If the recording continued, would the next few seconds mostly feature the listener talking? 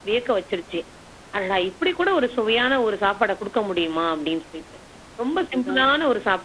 No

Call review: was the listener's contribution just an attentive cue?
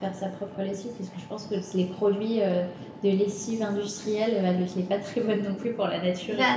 No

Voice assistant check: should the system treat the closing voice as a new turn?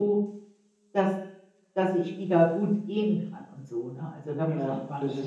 Yes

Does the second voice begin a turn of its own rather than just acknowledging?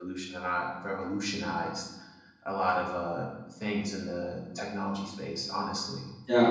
Yes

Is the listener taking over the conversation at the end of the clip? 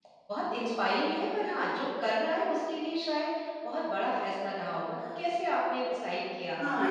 Yes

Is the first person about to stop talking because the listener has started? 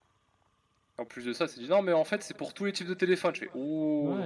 Yes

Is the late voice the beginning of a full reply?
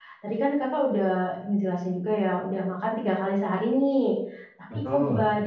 No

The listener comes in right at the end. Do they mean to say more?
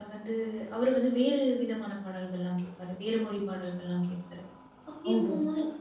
No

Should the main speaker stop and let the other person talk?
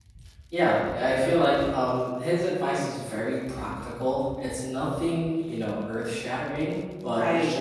No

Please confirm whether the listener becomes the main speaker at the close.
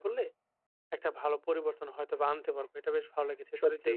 No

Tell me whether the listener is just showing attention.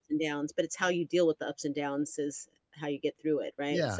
No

